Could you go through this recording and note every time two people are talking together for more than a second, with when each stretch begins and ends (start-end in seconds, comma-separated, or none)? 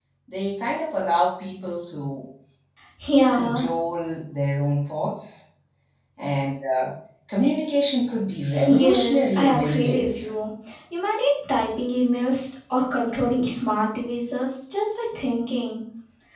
8.6-10.3